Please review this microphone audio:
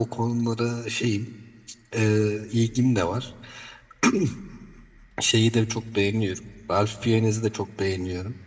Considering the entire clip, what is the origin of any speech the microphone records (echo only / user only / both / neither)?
echo only